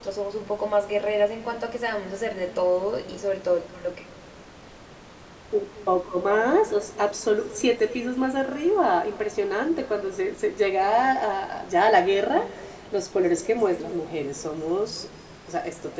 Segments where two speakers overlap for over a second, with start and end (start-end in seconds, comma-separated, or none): none